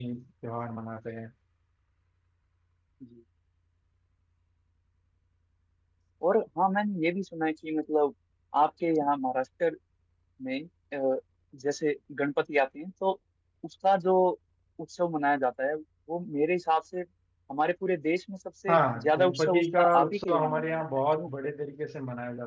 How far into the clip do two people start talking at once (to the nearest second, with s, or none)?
19 s